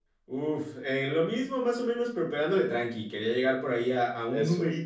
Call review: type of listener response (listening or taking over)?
listening